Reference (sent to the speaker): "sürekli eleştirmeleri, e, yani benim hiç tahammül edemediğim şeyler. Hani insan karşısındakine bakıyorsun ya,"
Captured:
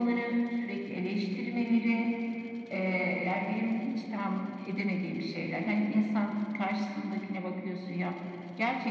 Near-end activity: none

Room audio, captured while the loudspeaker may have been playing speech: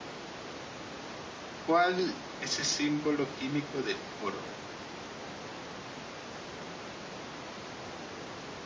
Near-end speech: present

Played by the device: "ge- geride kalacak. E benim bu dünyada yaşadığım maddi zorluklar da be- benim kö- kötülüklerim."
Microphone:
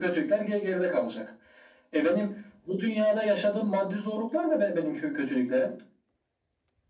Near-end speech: none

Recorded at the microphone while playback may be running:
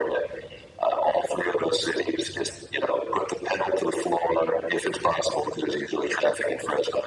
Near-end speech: none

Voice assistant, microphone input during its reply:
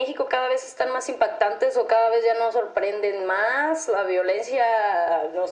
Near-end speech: none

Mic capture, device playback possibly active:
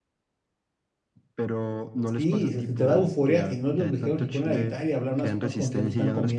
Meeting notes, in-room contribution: present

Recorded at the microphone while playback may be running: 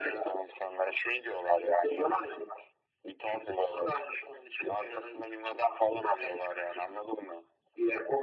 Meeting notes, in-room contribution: none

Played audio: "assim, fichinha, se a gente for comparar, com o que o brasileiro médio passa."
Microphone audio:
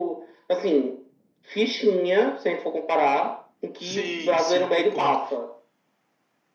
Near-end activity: present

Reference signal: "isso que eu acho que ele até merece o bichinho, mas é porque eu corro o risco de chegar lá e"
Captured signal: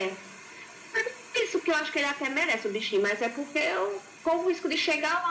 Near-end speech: none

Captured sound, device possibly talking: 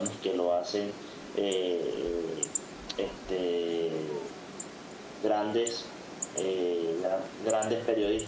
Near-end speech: none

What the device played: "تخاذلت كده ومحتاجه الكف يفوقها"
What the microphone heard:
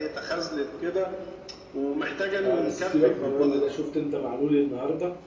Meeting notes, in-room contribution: present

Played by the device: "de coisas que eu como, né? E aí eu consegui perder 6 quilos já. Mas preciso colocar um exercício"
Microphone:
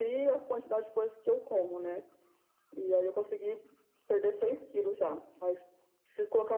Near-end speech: none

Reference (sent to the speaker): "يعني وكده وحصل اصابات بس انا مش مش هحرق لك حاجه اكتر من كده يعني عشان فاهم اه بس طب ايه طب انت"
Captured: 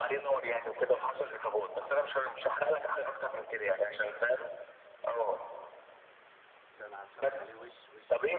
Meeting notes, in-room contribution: present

